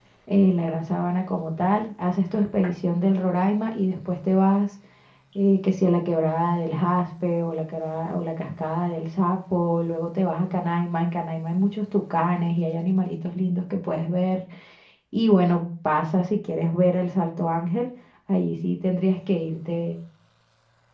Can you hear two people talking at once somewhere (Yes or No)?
No